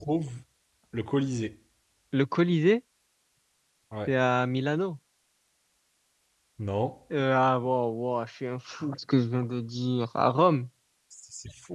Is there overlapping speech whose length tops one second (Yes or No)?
No